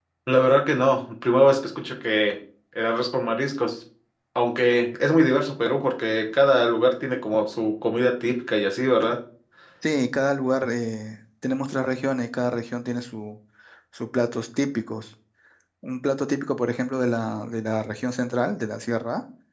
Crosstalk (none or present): none